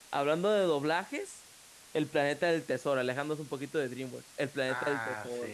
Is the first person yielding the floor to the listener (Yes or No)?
Yes